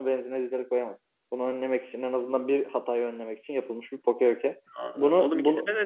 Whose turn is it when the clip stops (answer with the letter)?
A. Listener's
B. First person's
A